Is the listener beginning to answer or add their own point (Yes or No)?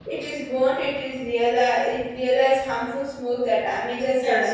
Yes